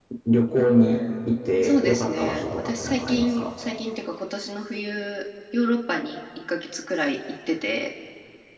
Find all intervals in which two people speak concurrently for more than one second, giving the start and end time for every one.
1.6-3.5

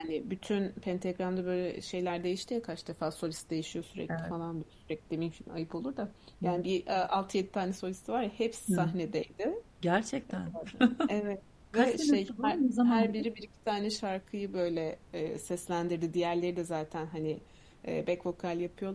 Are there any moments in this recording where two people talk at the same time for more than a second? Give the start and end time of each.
11.7-13.2

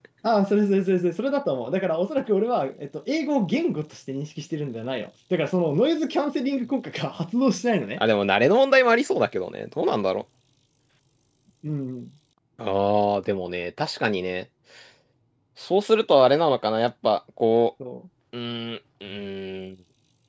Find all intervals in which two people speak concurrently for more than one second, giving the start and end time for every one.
none

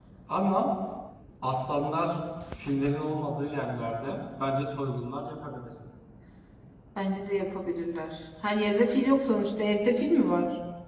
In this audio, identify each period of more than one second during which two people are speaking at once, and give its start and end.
none

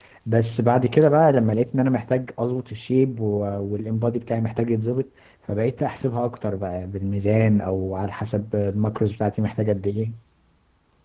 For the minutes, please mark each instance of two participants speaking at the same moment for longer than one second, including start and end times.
none

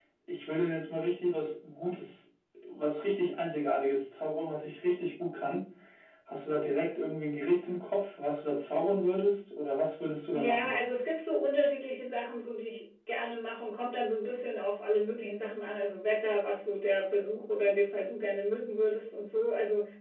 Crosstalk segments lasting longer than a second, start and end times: none

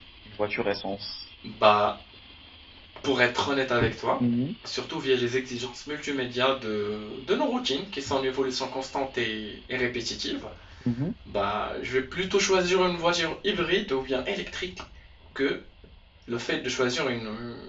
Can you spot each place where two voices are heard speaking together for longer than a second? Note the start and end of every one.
none

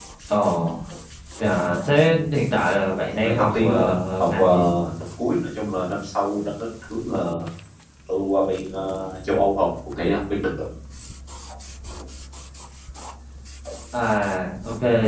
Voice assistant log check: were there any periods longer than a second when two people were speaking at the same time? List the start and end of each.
3.1-4.5

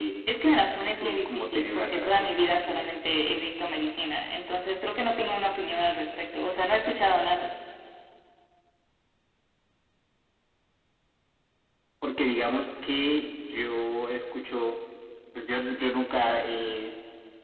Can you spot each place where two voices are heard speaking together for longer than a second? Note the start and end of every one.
1.0-2.9

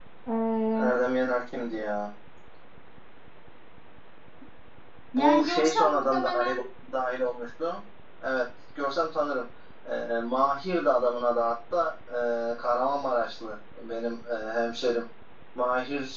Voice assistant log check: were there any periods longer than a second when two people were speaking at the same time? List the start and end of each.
5.2-6.5

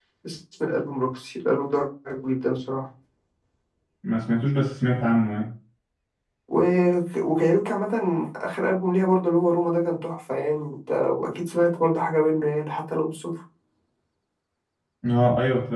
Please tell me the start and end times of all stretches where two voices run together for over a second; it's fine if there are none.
none

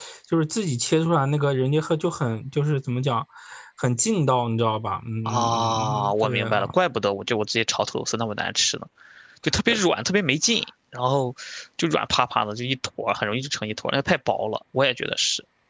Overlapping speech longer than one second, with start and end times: 5.3-6.7

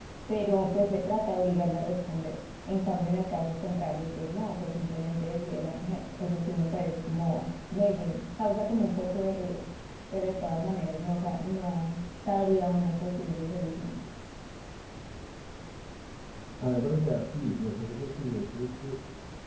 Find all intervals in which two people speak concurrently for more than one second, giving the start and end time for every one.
none

